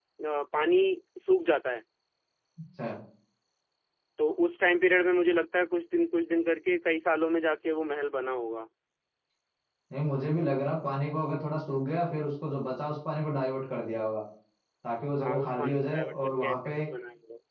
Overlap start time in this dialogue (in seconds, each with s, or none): 15.2 s